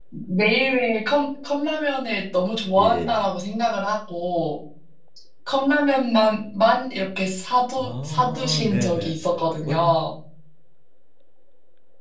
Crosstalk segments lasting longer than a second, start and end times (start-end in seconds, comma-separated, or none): 7.8-9.2